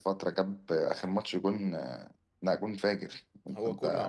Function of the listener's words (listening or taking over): taking over